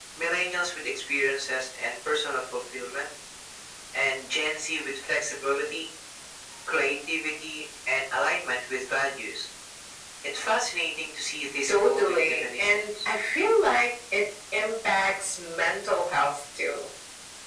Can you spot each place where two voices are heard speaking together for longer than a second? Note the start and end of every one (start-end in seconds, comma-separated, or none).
11.7-13.1